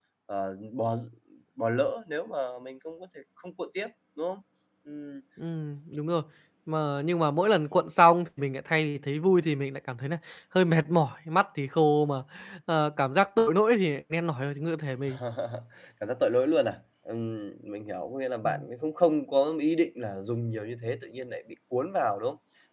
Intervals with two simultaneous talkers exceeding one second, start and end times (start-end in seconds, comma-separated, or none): none